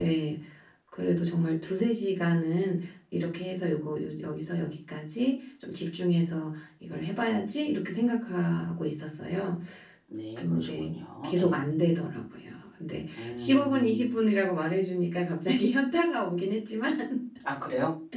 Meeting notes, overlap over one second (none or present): present